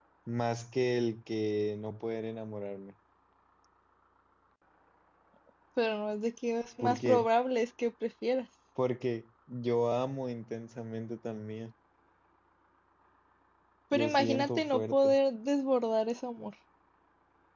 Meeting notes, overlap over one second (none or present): present